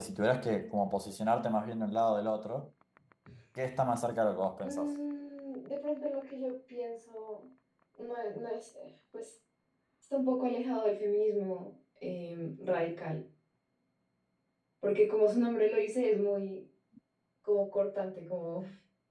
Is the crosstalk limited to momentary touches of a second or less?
Yes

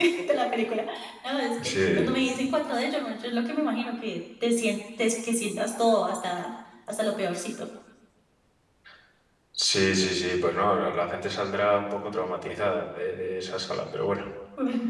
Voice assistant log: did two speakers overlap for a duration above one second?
No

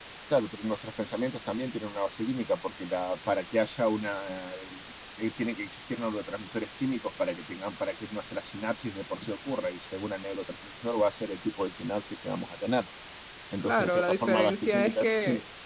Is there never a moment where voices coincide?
No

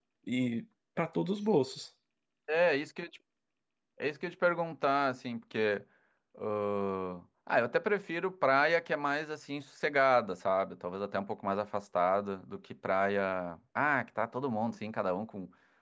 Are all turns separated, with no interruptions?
Yes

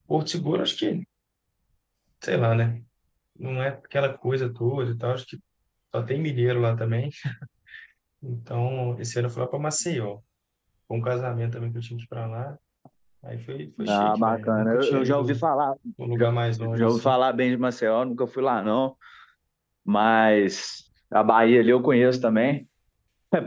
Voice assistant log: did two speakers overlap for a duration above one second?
Yes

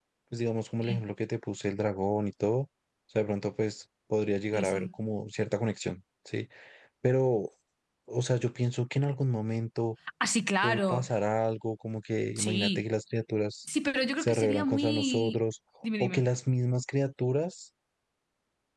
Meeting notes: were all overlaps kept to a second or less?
No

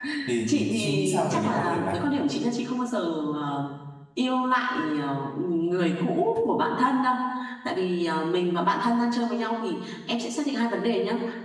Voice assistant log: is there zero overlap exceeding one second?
No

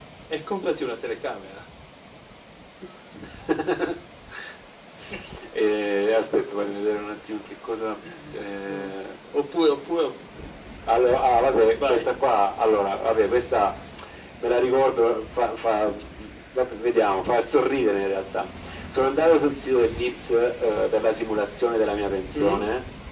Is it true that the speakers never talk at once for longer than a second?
Yes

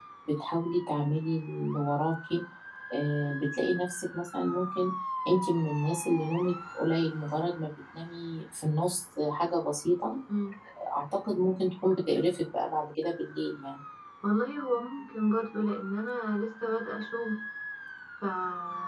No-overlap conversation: Yes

